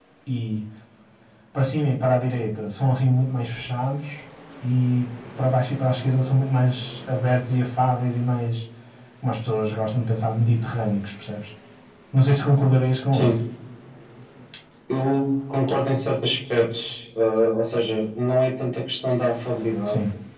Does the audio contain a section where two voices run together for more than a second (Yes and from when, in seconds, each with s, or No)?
No